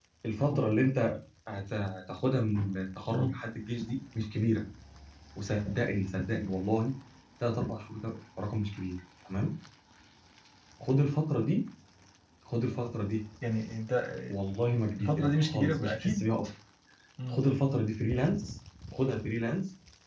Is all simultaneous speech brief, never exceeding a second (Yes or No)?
No